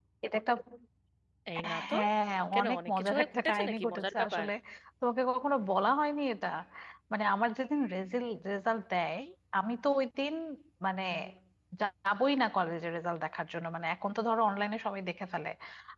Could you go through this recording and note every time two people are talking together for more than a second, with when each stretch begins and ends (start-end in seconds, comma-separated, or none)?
2.5-4.4